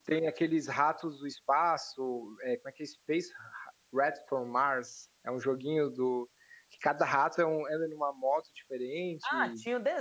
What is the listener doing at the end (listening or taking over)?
taking over